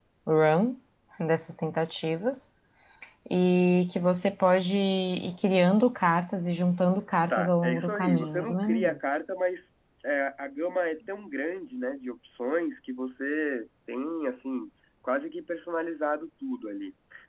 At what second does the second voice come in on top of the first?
7.3 s

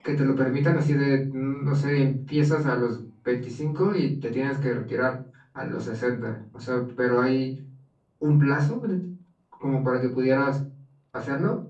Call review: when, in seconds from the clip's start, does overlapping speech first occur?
none

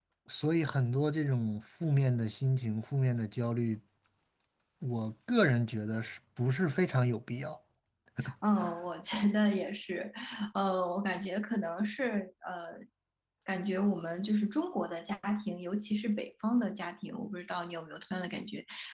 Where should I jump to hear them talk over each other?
none

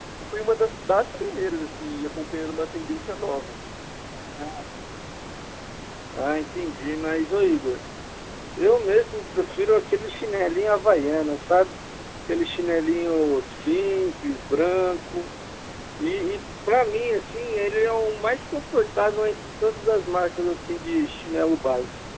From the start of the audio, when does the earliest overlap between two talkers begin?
none

